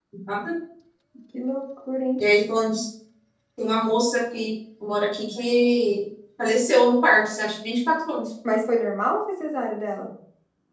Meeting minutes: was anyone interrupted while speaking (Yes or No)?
No